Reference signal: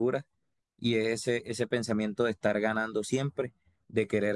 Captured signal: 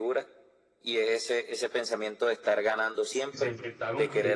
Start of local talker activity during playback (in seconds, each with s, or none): 3.3 s